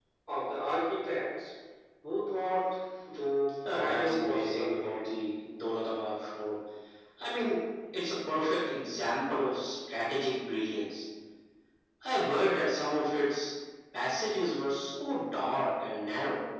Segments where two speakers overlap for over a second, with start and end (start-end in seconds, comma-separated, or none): 3.7-5.0